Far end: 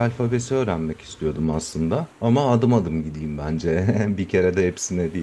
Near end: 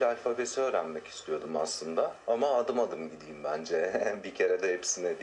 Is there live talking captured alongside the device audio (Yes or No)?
No